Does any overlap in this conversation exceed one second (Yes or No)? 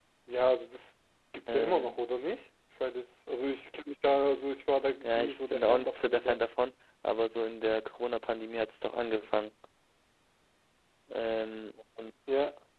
Yes